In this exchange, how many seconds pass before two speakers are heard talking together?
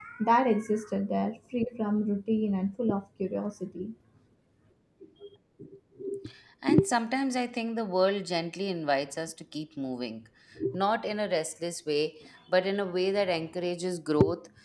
none

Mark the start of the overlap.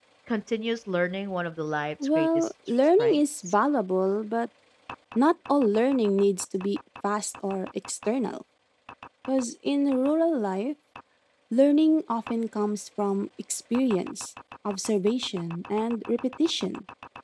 2.0 s

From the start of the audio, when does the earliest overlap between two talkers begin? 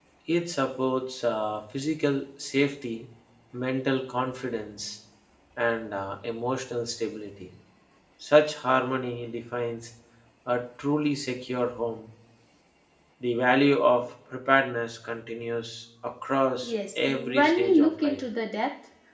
16.6 s

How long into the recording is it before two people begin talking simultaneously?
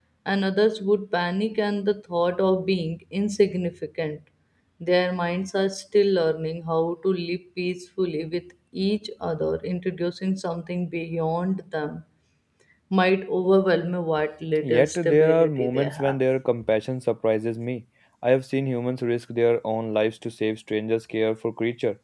14.6 s

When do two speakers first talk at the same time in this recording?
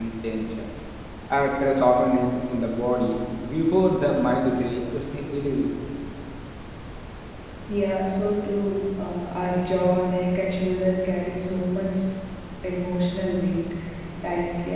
none

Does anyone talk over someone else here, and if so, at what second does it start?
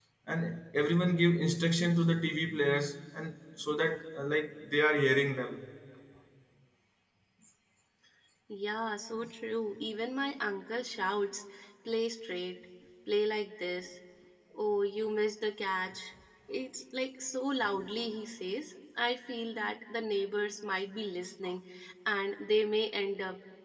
none

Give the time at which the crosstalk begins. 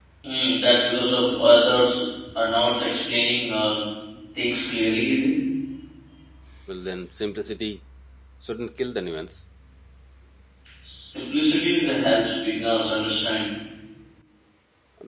none

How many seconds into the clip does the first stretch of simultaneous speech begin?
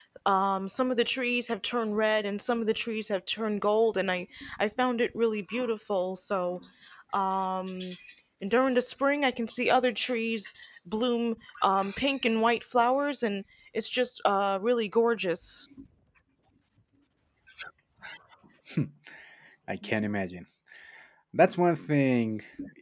none

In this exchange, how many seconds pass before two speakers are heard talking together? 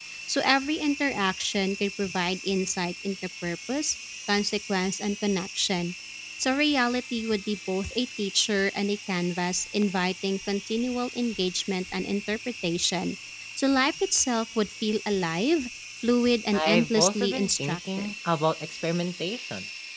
16.5 s

